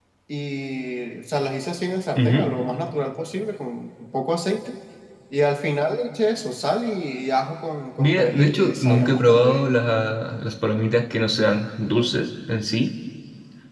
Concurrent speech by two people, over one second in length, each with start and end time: 8.0-9.8

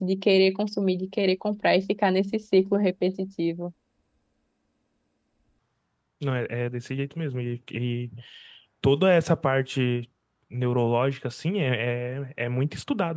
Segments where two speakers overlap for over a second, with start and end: none

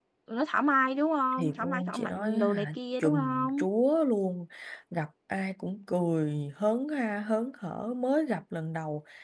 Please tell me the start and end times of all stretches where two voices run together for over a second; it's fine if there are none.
1.4-3.6

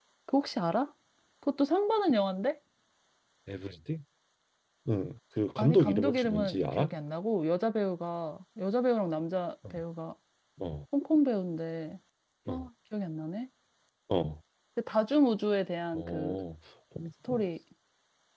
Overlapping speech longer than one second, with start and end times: 5.6-6.9

